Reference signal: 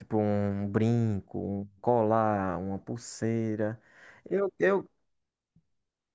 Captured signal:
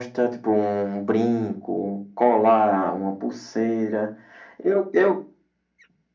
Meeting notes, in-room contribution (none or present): none